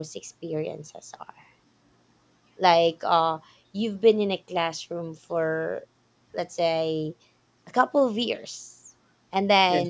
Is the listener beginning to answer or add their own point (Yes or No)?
No